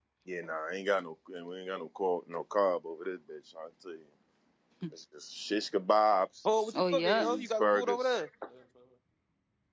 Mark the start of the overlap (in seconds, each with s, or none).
6.7 s